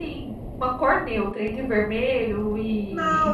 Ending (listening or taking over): taking over